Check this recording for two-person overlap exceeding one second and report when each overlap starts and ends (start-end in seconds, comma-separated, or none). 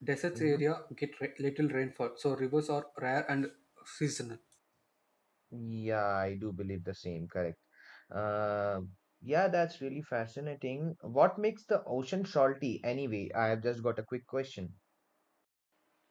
none